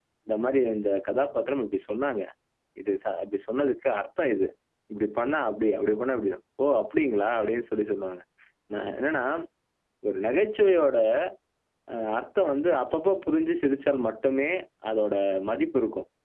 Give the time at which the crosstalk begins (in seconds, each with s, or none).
none